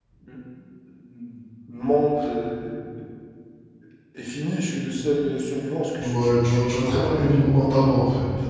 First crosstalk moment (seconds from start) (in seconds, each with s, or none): 6.0 s